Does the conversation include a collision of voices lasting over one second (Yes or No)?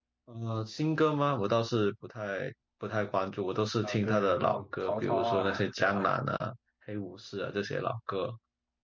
Yes